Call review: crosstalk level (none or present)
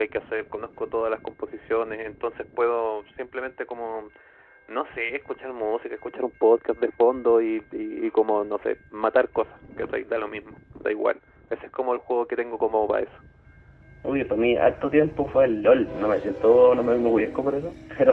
none